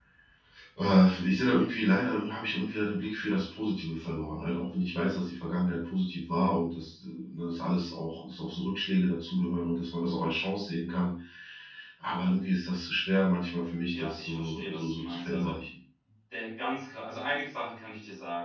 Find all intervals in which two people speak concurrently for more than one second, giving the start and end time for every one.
13.9-15.5

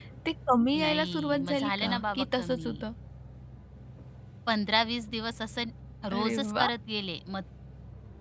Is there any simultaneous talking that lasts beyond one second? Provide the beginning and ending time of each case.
0.8-2.7

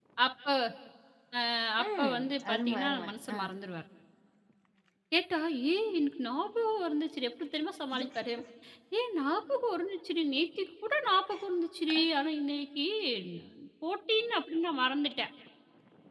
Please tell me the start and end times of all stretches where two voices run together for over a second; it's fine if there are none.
1.8-3.4

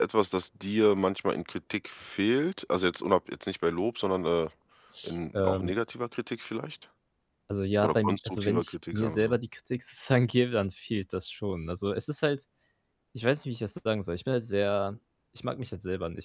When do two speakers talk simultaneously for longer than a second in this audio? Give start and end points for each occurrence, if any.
7.8-9.4

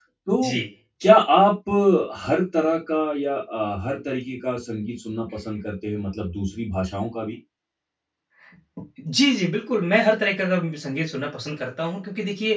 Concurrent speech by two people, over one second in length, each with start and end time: none

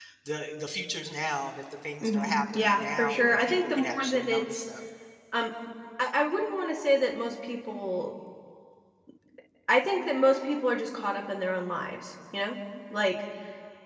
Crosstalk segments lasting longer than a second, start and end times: 2.0-4.7

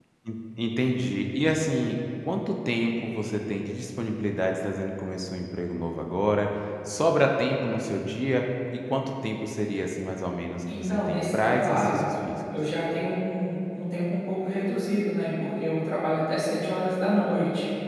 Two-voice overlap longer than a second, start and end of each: 10.8-12.0

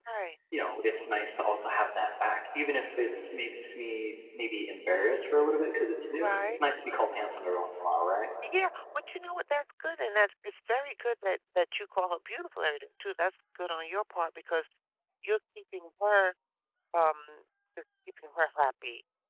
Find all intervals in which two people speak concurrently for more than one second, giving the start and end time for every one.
none

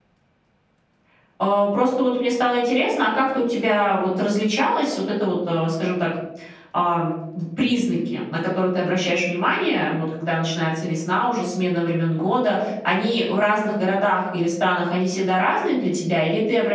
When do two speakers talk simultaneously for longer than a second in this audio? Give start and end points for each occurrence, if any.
none

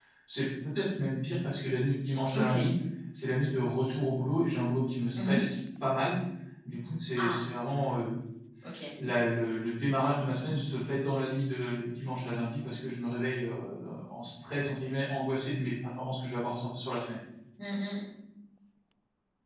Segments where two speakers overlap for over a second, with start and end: none

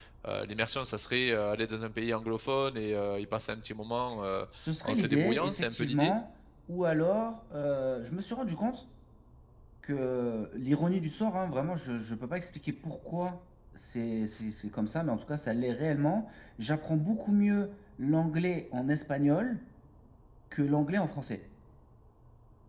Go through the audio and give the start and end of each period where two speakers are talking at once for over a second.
4.8-6.1

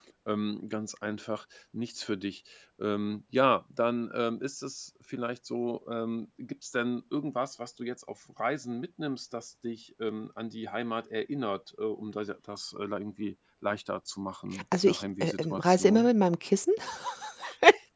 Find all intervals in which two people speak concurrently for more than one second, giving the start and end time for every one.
14.8-16.1

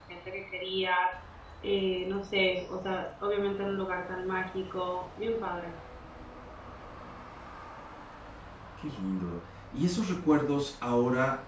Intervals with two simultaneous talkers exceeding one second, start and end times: none

